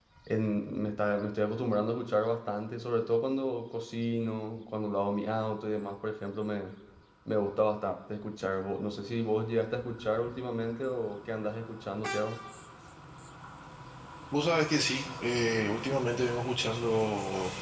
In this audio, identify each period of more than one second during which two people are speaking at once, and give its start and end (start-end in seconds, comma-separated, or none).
none